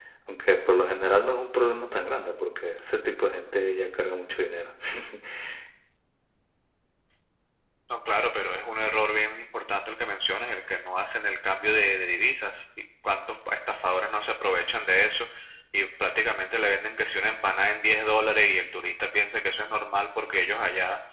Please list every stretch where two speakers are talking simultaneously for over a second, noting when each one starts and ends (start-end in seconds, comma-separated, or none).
none